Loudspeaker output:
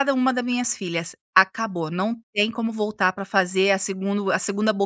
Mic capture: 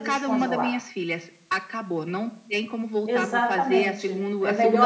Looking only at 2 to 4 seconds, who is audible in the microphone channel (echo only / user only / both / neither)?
both